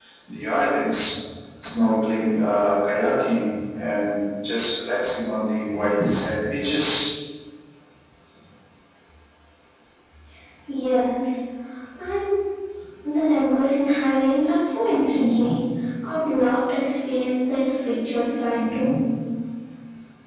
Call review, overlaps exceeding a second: none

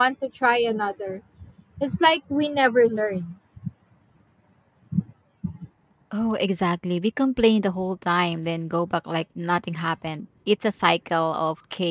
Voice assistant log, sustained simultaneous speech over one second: none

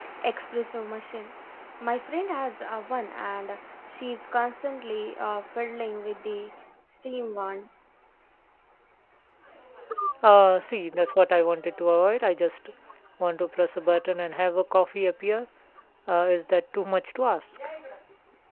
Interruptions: none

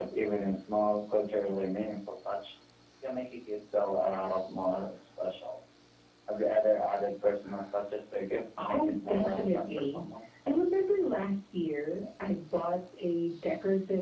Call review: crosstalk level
present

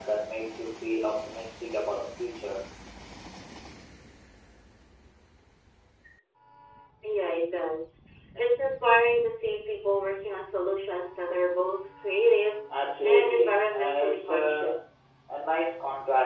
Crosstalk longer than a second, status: present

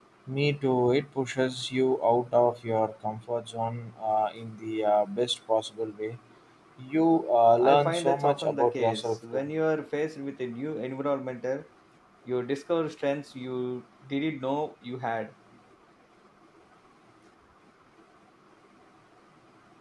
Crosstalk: present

